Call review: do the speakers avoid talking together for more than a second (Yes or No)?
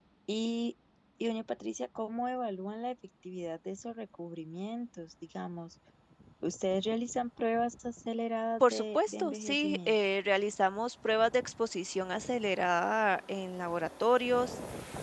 No